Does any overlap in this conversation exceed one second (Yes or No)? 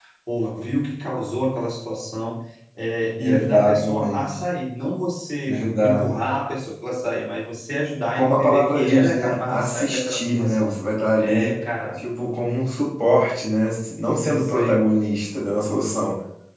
Yes